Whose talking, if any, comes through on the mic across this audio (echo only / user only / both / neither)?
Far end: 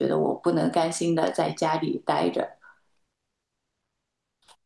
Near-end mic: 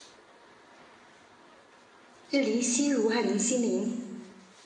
user only